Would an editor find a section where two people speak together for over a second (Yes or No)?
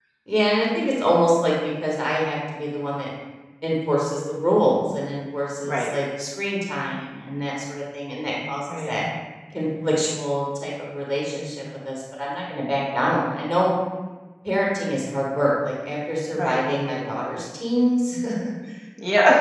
No